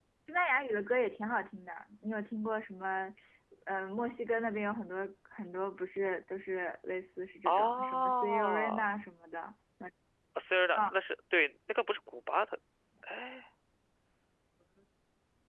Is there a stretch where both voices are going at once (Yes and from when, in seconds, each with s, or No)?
Yes, from 7.5 s